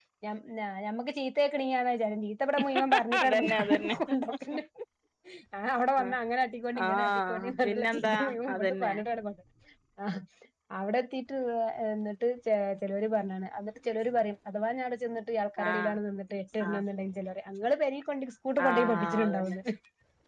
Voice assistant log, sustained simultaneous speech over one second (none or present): present